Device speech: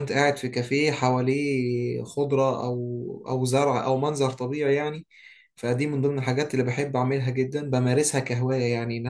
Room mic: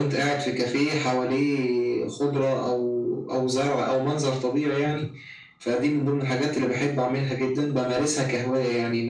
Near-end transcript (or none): مم.